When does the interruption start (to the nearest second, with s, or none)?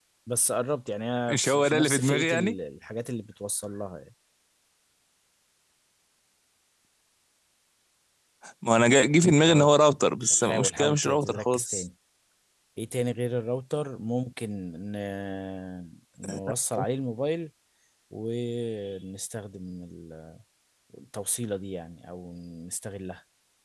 1 s